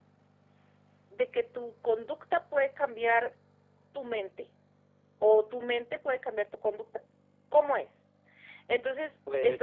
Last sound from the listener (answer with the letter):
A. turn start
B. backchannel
B